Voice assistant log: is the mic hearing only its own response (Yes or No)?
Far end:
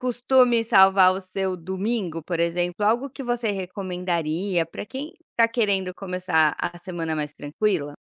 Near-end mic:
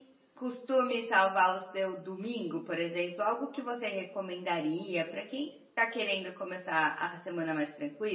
Yes